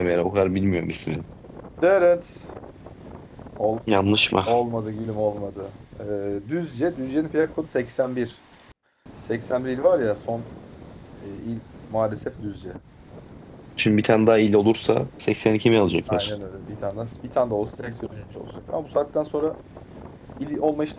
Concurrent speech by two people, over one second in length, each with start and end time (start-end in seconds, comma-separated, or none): none